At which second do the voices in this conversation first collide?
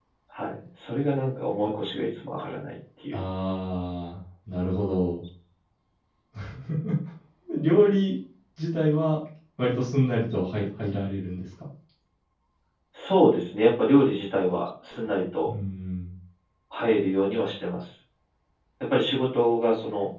none

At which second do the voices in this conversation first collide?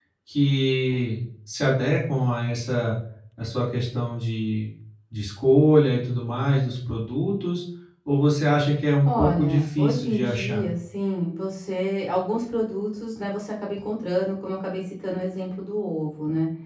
9 s

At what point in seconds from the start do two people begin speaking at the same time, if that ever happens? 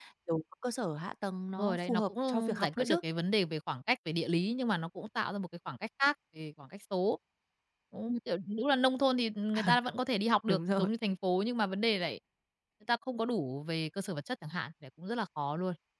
2 s

